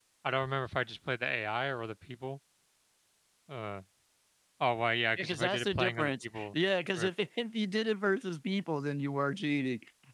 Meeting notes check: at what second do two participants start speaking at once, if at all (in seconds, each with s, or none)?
5.2 s